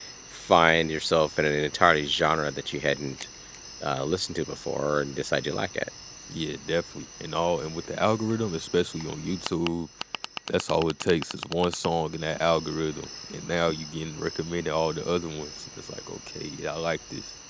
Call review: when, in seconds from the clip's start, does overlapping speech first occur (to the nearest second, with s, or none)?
none